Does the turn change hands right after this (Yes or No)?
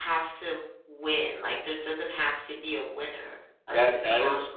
Yes